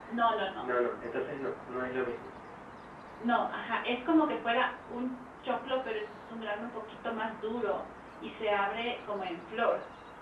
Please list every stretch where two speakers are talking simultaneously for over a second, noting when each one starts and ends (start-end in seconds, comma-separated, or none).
none